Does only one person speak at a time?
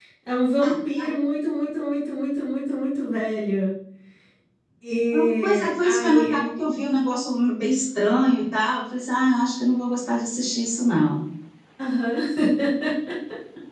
No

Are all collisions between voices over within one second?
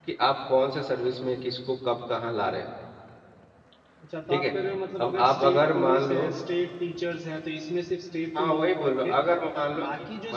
No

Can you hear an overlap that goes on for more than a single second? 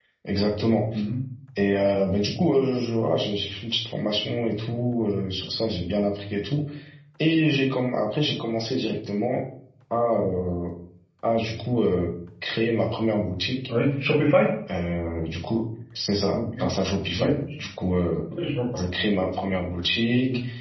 No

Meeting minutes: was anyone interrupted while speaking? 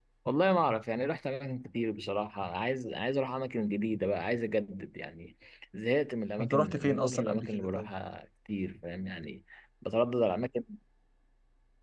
Yes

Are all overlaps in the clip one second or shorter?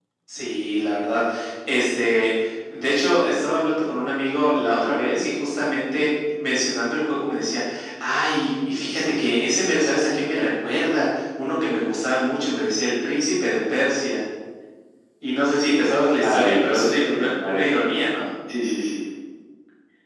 No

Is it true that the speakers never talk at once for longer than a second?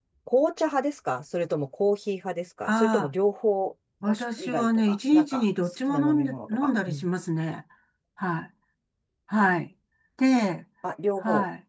No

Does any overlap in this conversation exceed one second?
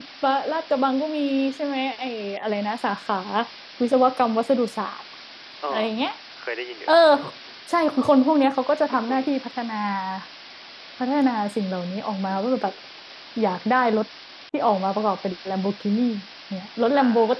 No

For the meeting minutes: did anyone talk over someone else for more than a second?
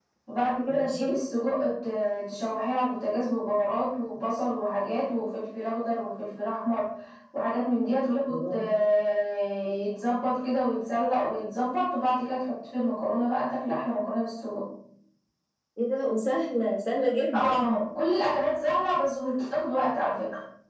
No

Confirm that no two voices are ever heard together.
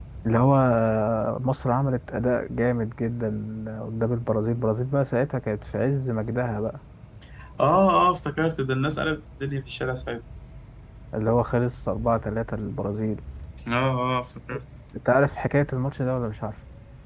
Yes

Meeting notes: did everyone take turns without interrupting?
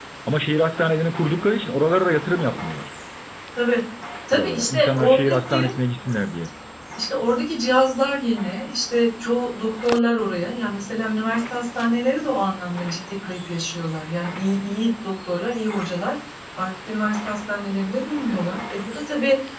No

